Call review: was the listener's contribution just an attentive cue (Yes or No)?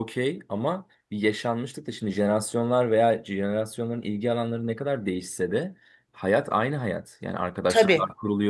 Yes